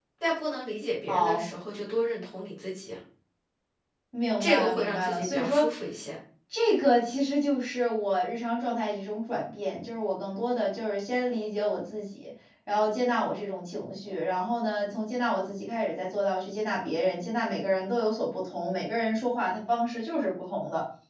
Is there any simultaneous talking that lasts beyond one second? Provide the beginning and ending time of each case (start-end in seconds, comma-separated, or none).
4.4-5.7